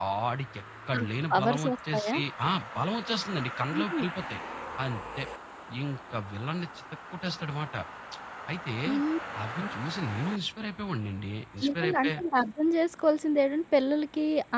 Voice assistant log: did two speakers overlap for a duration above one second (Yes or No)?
Yes